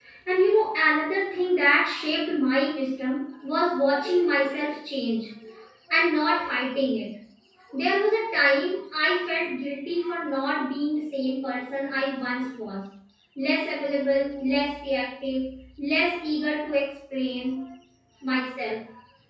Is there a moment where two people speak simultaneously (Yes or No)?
No